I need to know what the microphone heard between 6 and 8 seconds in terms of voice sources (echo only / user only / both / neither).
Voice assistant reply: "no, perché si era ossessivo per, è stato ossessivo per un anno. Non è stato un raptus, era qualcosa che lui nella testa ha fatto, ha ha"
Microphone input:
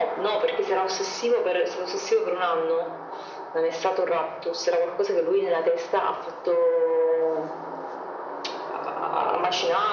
echo only